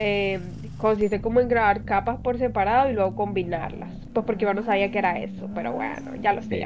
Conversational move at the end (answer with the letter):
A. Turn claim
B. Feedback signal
A